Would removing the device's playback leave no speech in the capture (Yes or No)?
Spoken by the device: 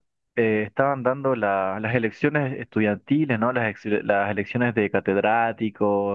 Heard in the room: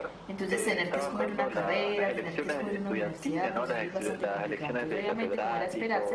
No